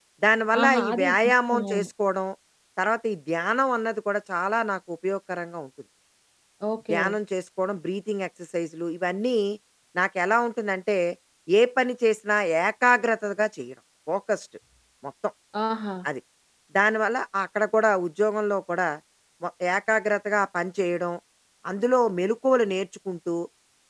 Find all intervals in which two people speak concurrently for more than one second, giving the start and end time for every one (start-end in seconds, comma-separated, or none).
0.6-1.9